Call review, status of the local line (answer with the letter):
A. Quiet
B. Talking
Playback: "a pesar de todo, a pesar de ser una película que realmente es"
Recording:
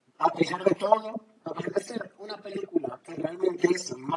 A